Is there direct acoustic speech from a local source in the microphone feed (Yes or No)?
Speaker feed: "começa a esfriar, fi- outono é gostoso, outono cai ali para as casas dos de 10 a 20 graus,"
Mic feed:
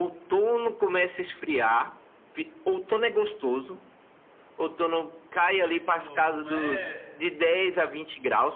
Yes